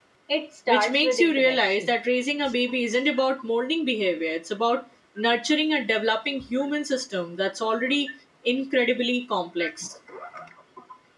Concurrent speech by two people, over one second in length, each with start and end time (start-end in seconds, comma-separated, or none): 0.7-1.9